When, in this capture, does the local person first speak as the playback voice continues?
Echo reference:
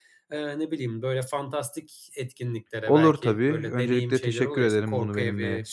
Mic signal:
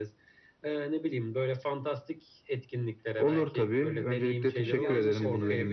4.7 s

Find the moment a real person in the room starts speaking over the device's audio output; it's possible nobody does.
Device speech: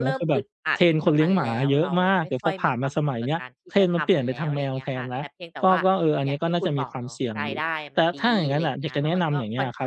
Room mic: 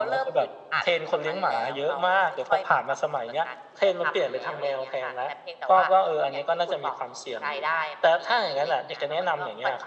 none

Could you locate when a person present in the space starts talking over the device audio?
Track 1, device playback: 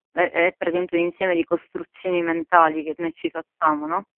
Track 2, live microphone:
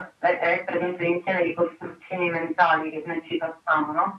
none

